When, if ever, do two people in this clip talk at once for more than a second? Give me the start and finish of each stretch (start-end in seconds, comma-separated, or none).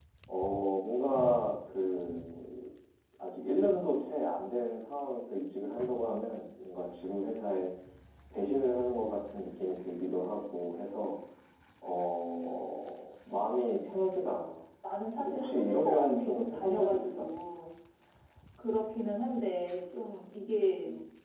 15.2-17.3